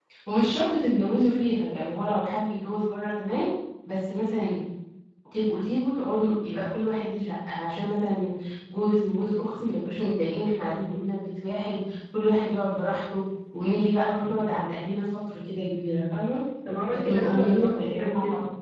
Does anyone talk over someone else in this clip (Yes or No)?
Yes